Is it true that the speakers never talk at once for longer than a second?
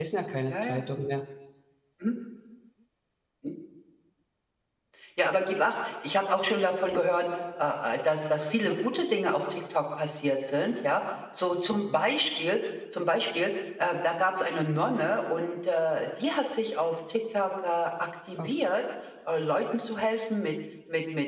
Yes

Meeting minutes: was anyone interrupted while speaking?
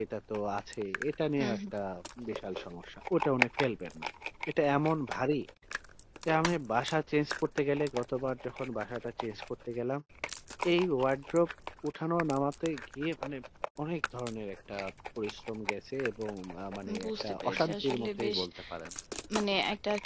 Yes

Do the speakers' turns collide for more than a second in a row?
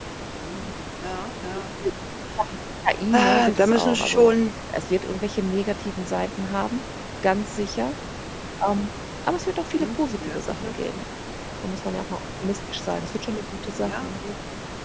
Yes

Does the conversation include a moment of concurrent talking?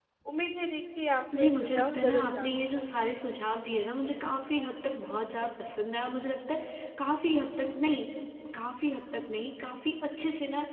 Yes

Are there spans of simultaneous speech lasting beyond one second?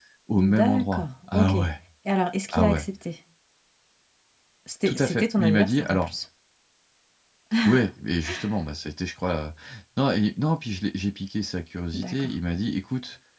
Yes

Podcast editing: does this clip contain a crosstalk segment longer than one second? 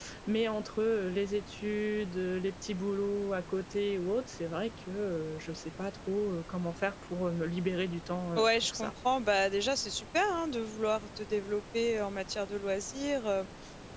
No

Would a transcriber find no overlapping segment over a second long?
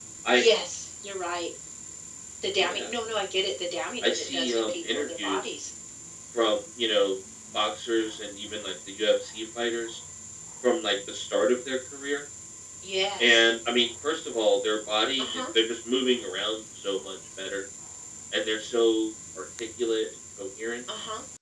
No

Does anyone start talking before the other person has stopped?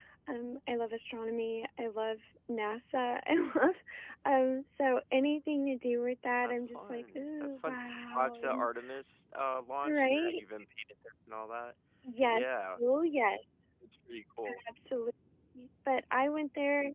Yes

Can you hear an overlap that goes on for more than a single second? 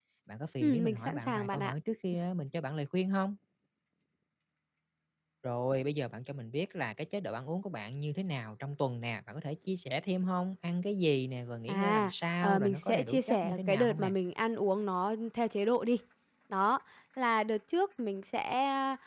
Yes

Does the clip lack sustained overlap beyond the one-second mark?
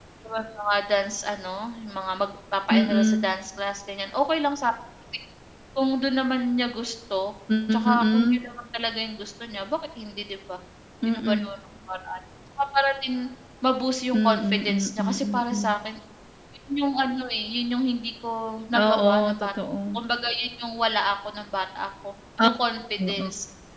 No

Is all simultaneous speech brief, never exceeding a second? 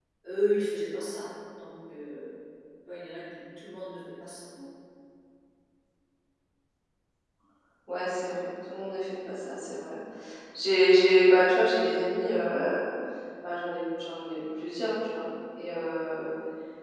Yes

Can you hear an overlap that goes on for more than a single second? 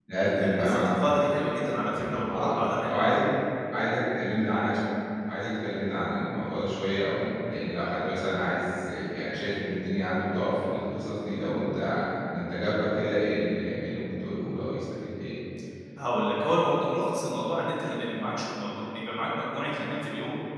No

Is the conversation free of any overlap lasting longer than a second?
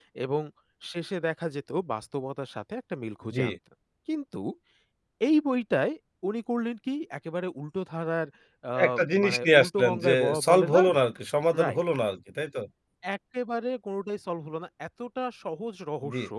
No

